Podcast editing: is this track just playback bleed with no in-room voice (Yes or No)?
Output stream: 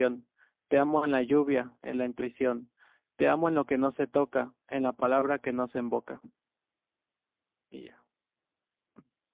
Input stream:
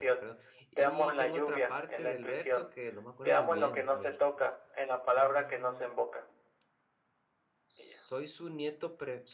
No